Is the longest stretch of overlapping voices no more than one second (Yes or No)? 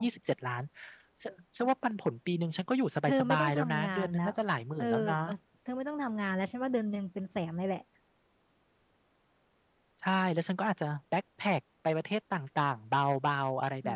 No